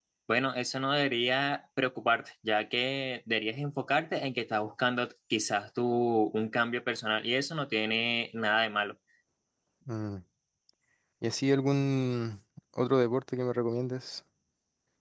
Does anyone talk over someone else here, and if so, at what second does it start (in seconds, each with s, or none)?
none